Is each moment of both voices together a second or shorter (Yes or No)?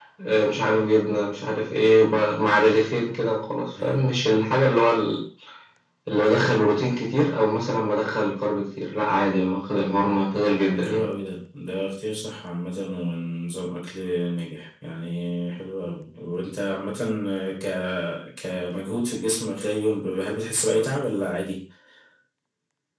Yes